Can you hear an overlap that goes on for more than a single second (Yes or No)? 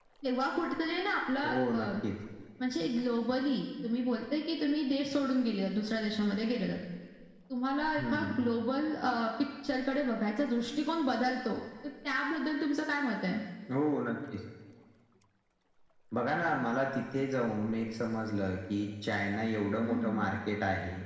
No